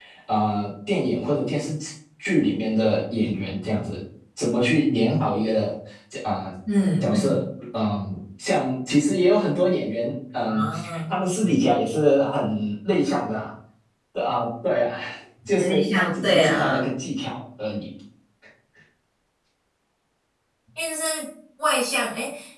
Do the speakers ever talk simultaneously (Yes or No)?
Yes